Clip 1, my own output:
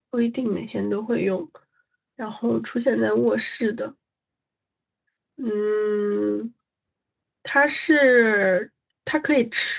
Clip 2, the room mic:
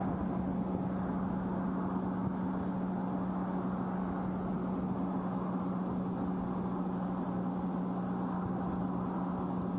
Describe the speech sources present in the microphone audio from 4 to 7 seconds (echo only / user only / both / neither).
neither